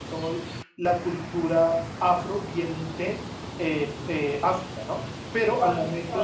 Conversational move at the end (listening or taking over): taking over